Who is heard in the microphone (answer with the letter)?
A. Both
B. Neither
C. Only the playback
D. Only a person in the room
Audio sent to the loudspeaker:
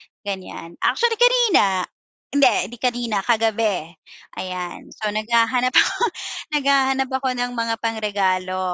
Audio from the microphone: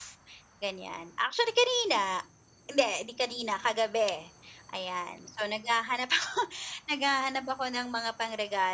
C